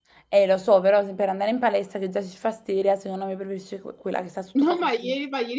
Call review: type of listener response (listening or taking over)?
taking over